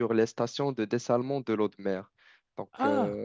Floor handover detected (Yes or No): Yes